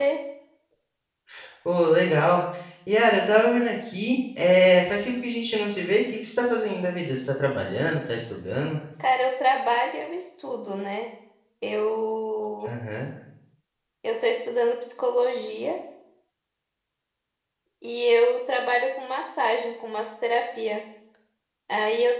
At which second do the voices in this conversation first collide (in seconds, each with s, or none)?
none